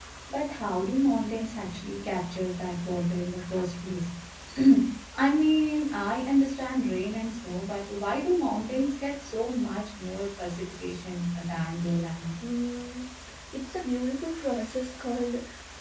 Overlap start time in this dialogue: none

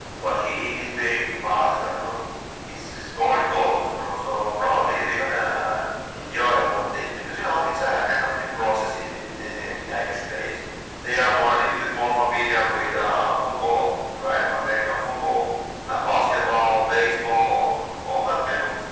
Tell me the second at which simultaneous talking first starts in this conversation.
none

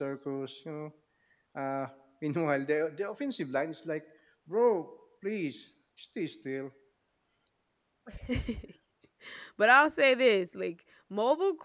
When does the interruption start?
none

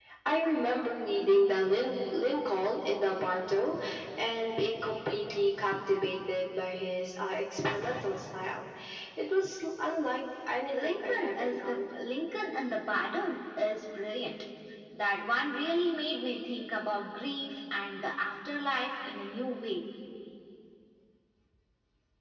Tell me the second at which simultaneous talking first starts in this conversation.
10.7 s

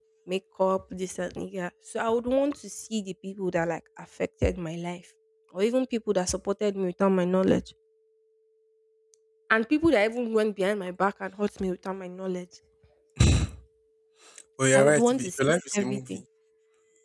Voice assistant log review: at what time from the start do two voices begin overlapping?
14.7 s

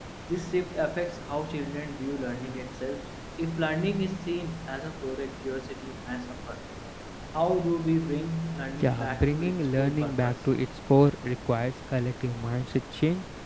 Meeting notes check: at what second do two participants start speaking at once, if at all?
8.8 s

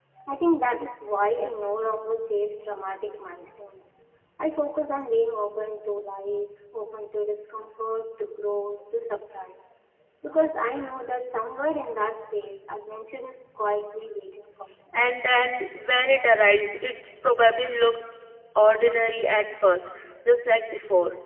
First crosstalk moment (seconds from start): none

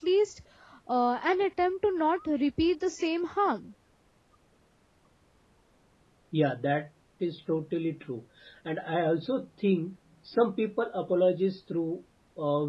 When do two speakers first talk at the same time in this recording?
none

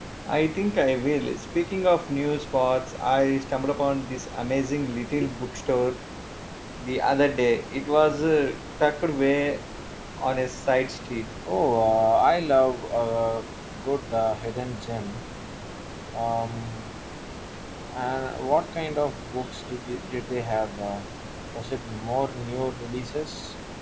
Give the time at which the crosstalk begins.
none

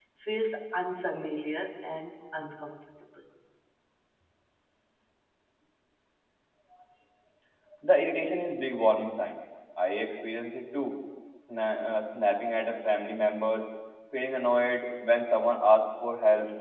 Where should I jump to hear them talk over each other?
none

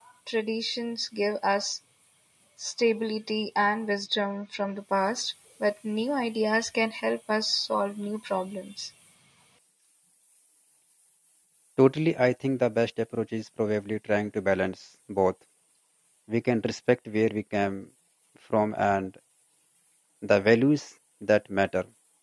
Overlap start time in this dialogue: none

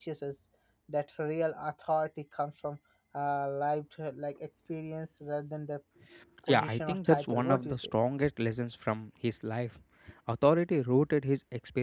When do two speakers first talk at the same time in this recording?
6.5 s

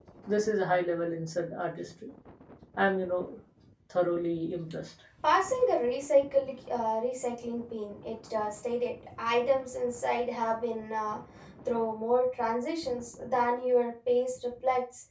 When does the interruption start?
none

